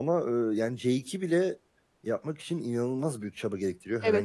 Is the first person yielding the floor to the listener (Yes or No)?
Yes